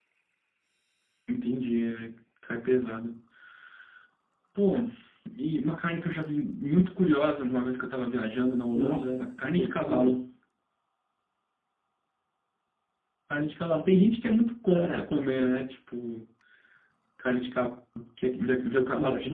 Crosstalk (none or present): present